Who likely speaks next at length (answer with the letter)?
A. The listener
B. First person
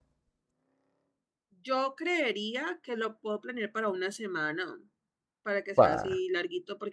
B